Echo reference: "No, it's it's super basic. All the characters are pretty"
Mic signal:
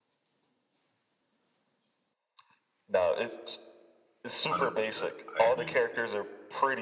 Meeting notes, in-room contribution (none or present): present